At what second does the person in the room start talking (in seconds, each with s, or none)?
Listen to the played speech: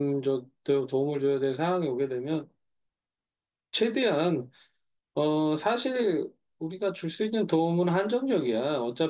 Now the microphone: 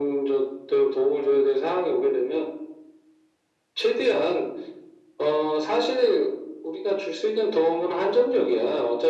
none